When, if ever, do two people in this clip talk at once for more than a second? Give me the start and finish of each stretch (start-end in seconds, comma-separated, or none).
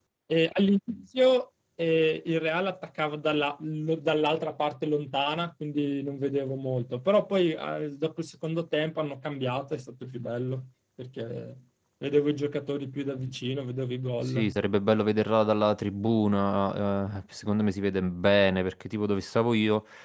none